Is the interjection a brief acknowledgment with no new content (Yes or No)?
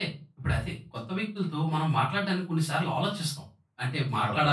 Yes